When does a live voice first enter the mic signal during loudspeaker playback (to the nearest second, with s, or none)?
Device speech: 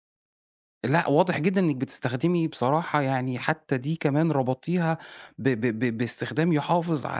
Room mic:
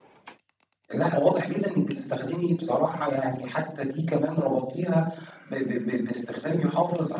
none